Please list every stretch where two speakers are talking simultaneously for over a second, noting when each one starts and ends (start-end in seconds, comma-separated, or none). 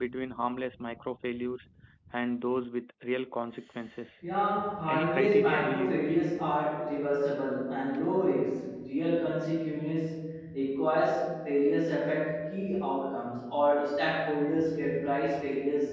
4.9-6.2